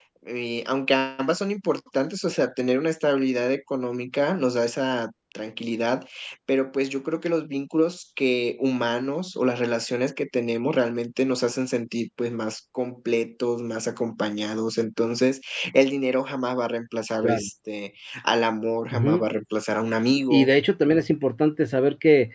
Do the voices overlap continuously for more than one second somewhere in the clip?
No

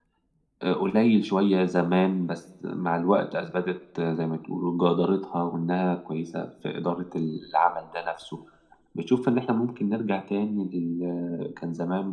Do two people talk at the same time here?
No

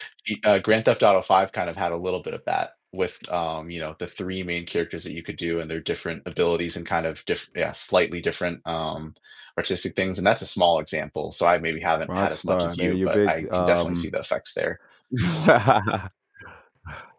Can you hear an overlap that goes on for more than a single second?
Yes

